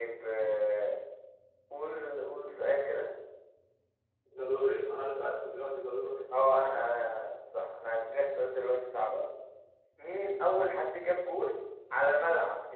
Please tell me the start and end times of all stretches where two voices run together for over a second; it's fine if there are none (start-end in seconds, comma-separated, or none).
none